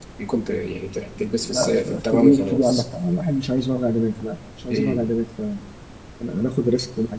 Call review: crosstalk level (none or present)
present